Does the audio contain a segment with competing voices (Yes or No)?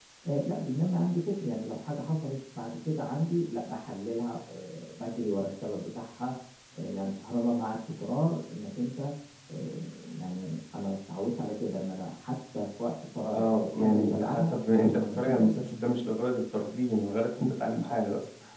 Yes